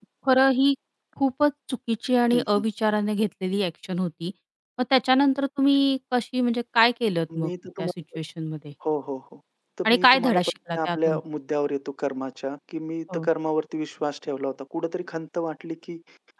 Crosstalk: present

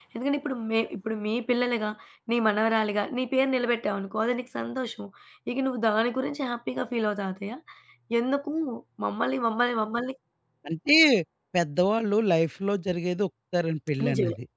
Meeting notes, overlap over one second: none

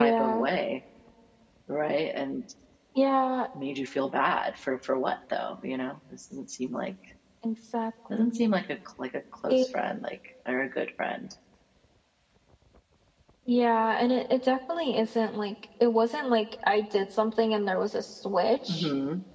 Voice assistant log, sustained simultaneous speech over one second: none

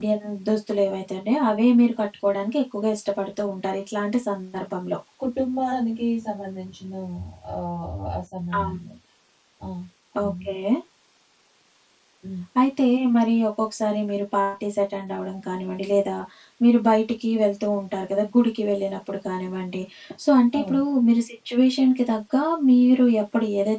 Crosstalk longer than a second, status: none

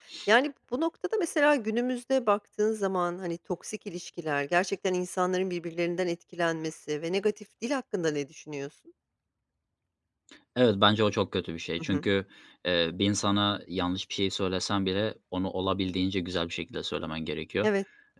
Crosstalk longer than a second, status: none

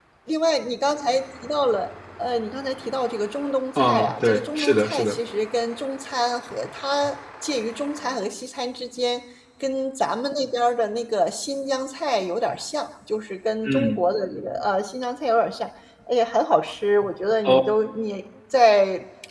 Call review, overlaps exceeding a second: present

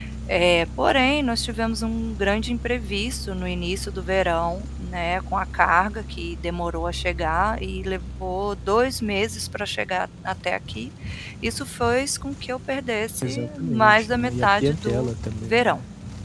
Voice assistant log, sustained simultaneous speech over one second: present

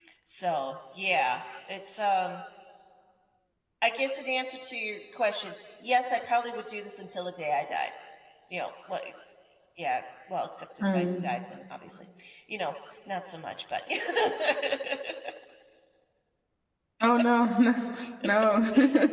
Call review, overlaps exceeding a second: none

